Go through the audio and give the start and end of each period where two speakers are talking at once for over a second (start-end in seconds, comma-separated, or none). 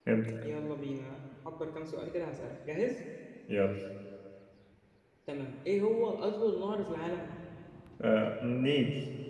none